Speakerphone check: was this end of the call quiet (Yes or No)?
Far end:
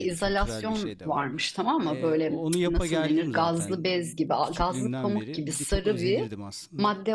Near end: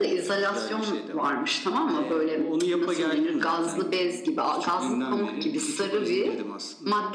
Yes